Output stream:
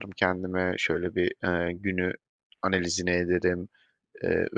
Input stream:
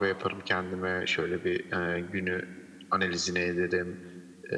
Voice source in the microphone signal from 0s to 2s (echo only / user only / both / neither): echo only